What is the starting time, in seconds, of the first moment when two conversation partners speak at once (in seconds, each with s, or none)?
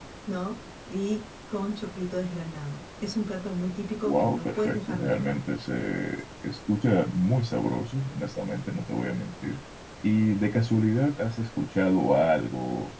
4.1 s